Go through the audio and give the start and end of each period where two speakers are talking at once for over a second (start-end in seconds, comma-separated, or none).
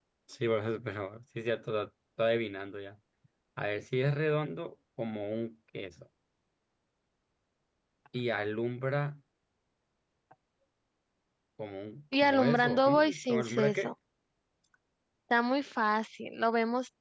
12.1-13.9